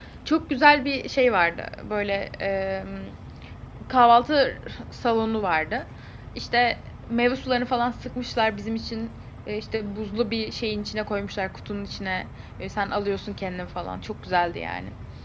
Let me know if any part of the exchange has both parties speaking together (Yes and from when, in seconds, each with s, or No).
No